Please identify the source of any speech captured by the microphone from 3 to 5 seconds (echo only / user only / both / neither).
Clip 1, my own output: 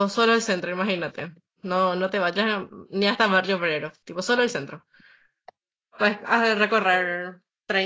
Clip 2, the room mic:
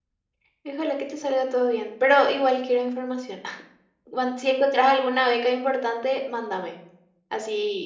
user only